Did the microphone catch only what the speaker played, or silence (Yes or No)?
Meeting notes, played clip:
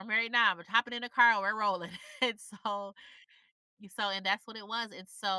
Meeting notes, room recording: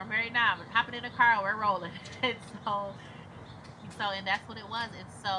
Yes